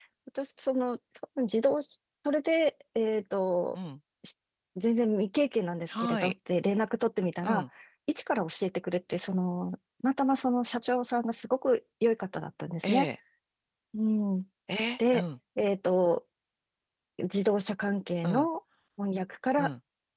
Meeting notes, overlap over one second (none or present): none